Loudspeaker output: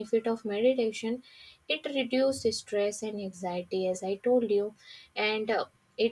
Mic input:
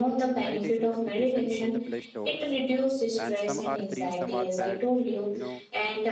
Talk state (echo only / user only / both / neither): both